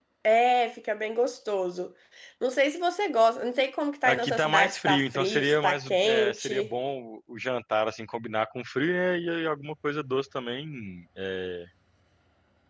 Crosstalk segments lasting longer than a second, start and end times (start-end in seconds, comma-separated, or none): 4.0-6.7